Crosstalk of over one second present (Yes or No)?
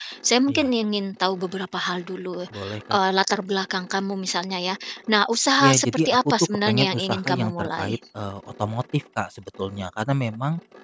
Yes